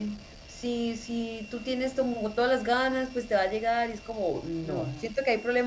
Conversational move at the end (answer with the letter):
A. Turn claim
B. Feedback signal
B